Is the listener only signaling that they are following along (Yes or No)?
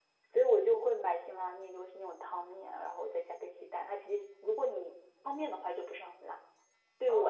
No